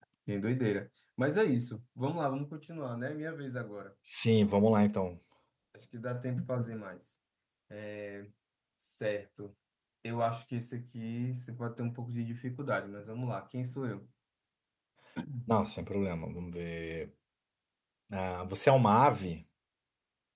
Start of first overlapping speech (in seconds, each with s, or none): none